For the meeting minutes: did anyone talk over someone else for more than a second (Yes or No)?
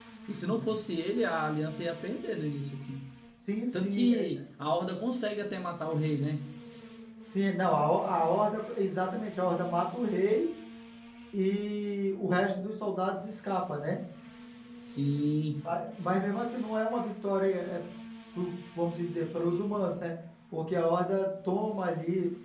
No